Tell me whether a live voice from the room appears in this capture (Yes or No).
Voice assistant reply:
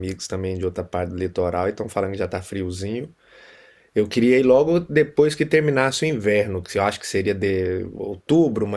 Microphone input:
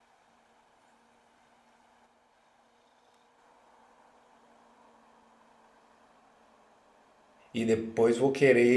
Yes